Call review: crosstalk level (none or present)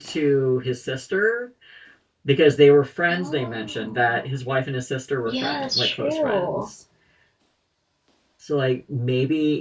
present